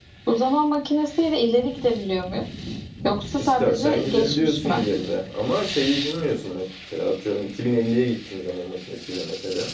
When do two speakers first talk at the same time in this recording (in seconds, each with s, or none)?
3.4 s